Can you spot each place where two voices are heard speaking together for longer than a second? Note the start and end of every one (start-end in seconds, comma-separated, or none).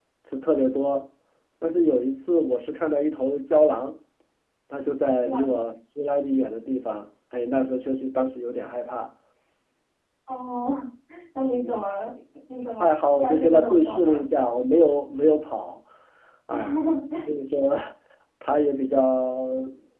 12.8-14.2